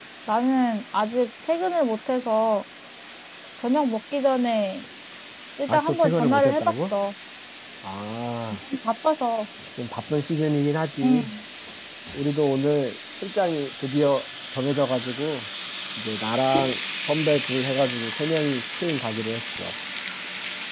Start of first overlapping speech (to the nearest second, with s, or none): 6 s